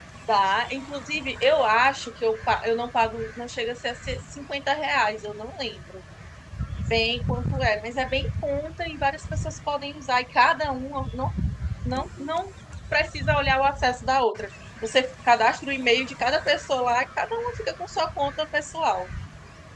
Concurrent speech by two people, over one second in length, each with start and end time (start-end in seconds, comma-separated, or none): none